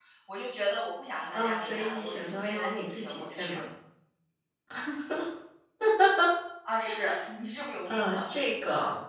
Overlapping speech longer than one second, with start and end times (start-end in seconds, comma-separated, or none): 1.3-3.6